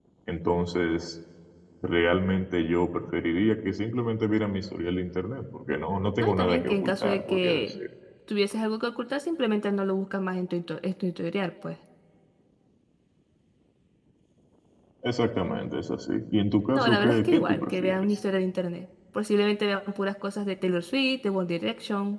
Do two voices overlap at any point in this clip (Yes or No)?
Yes